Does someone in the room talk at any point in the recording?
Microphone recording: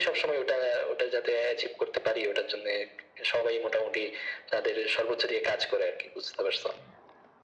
No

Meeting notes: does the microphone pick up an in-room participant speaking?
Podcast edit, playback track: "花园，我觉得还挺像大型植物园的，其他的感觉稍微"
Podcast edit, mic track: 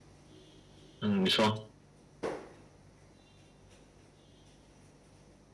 Yes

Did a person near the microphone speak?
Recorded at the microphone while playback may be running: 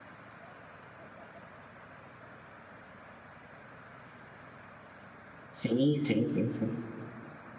Yes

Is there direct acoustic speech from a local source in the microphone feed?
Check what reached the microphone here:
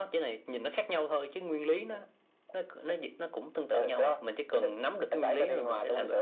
No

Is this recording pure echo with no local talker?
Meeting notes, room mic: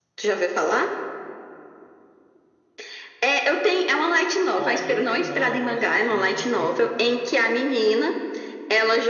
No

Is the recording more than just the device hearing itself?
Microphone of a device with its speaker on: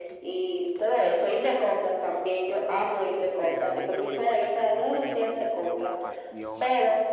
Yes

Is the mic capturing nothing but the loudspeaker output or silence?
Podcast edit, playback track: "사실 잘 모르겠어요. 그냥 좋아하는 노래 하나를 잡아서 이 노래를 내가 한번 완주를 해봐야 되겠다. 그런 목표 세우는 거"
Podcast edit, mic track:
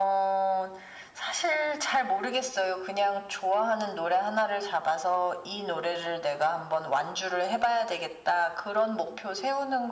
Yes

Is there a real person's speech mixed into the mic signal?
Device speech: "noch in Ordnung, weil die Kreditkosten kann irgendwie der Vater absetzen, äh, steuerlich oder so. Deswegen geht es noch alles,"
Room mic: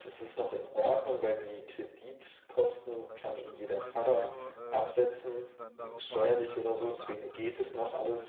Yes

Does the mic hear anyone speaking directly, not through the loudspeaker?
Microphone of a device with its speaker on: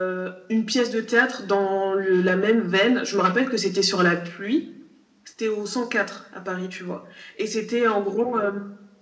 No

